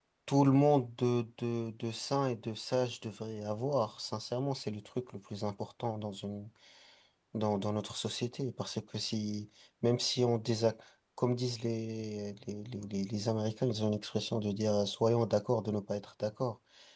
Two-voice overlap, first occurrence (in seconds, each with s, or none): none